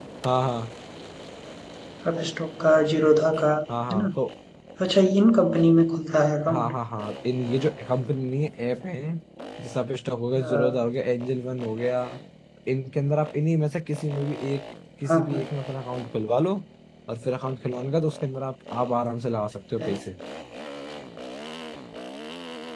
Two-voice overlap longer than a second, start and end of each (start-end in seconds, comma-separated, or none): none